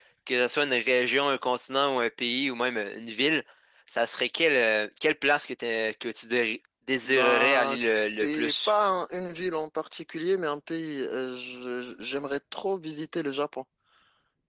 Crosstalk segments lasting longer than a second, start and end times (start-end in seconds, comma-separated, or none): 7.0-8.7